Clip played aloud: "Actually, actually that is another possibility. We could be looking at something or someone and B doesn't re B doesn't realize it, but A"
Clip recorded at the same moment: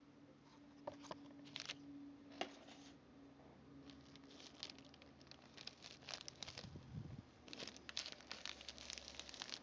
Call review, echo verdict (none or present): none